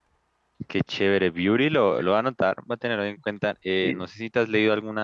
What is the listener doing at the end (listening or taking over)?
listening